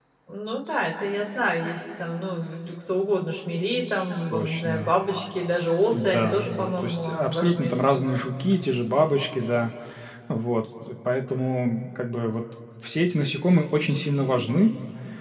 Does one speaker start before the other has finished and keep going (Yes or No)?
Yes